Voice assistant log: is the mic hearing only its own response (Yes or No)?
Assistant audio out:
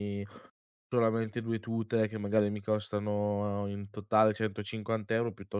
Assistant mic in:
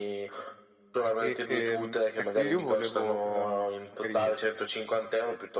No